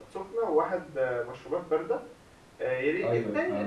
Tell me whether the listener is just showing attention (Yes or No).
Yes